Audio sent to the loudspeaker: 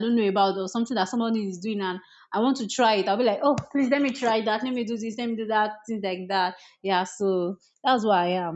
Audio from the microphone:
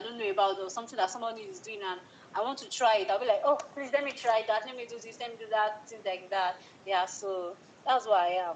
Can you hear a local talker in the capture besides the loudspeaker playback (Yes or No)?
No